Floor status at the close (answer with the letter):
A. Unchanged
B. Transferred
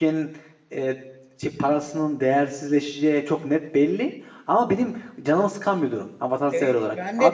B